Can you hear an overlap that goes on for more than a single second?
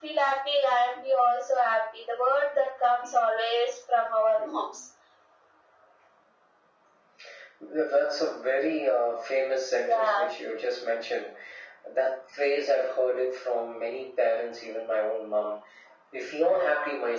No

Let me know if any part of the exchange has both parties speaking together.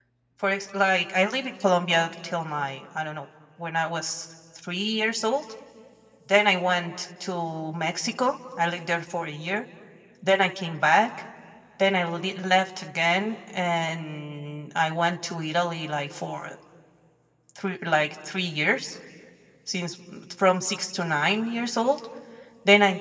No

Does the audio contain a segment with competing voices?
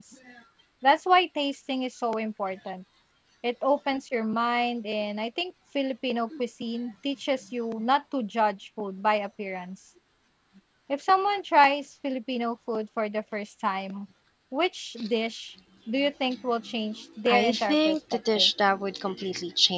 Yes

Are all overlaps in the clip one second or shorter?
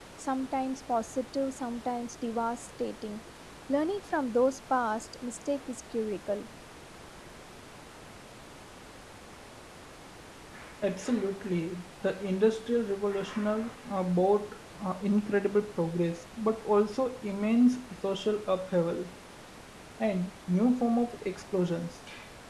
Yes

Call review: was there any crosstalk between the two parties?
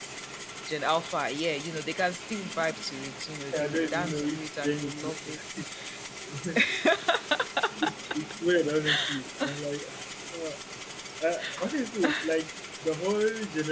Yes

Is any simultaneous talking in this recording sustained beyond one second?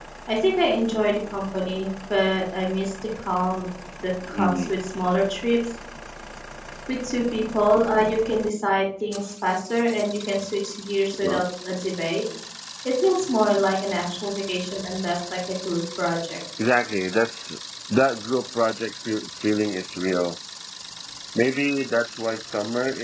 No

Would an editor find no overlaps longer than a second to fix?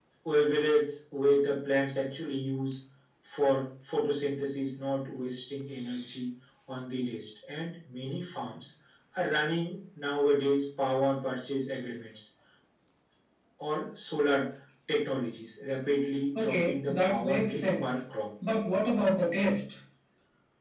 No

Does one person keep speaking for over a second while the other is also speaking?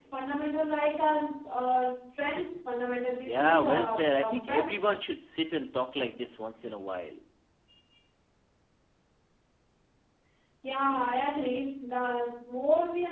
Yes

